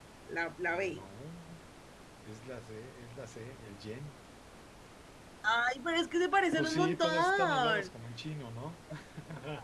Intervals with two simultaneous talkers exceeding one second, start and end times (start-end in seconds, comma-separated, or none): 6.6-7.9